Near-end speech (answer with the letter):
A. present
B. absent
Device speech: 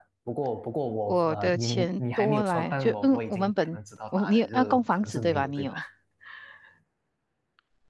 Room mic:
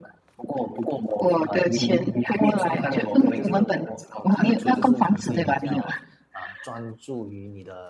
A